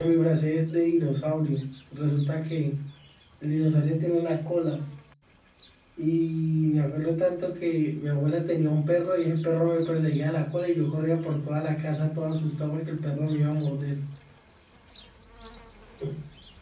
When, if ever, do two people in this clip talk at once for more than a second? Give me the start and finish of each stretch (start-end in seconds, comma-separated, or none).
none